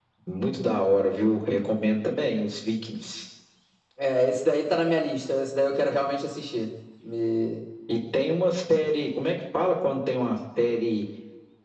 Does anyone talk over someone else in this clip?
No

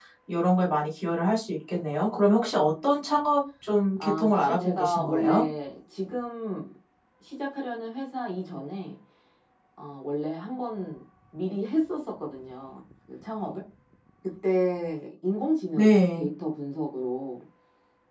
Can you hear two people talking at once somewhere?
Yes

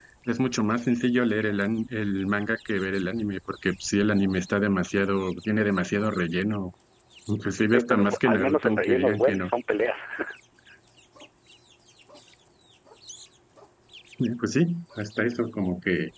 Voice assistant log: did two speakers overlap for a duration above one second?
Yes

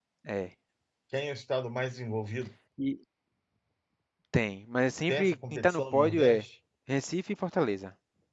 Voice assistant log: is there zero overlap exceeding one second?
No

